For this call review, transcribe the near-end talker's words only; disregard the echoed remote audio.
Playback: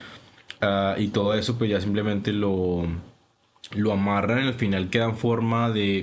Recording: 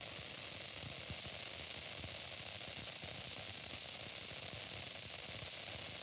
none

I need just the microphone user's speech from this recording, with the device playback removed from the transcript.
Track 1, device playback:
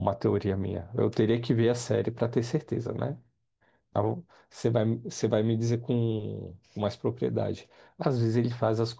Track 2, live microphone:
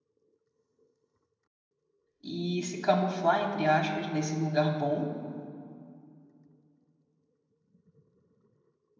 E se camuflar, entre aspas, nesse lugar bom.

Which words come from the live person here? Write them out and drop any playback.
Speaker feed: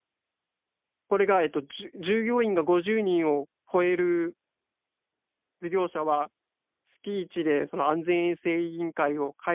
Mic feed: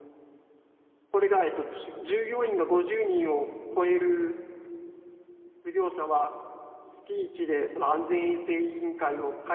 none

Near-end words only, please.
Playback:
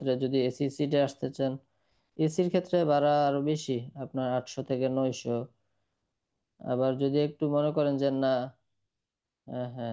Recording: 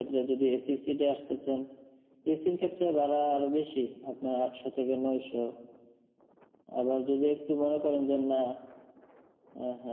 none

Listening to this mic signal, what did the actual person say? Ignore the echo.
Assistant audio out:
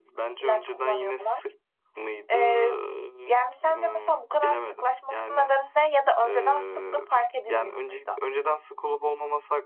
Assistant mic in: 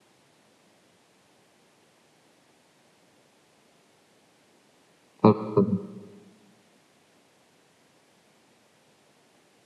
tabii, tabii.

